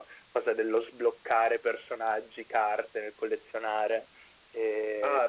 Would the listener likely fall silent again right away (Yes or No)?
No